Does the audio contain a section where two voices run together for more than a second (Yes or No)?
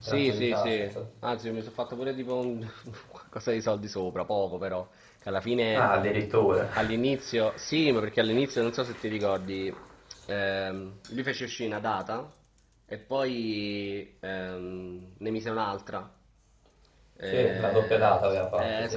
Yes